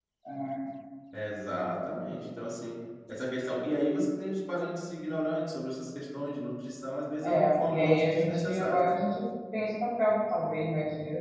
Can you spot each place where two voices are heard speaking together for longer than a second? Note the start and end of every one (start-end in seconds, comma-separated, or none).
7.2-8.8